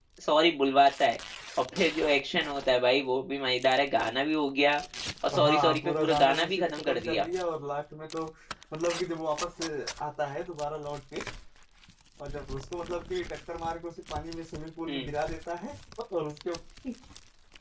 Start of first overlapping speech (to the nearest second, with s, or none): 5 s